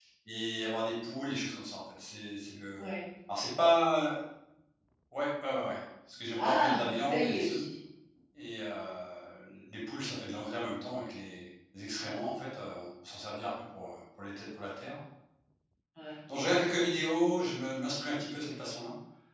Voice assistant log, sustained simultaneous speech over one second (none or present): present